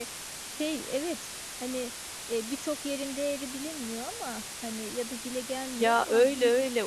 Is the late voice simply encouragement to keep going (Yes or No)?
No